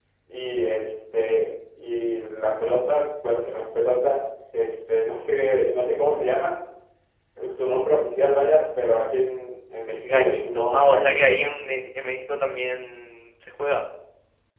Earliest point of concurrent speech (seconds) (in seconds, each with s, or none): 10.0 s